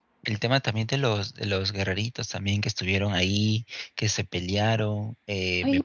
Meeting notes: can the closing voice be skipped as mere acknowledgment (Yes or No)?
No